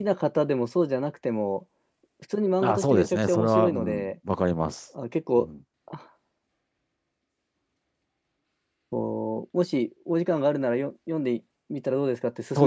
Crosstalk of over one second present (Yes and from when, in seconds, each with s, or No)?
Yes, from 2.6 s